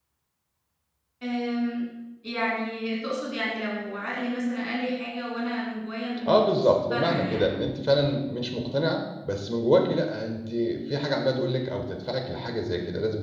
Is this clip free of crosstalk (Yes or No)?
No